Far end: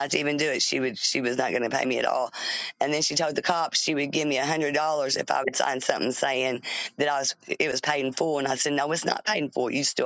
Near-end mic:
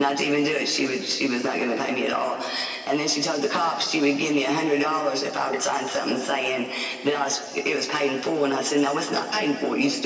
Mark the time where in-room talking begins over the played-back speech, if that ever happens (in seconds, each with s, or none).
none